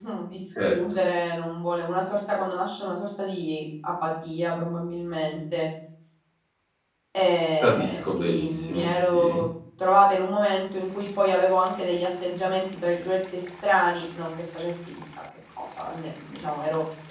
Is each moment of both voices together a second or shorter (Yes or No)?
No